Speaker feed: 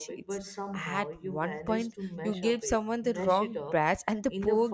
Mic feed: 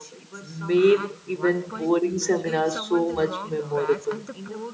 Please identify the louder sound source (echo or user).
user